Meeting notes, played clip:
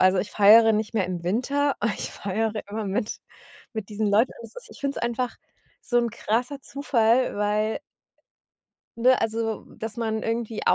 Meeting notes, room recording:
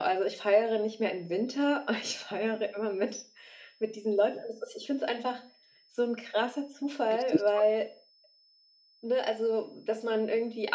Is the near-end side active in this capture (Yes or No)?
Yes